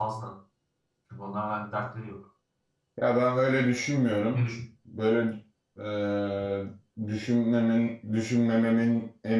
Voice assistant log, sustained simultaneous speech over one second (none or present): none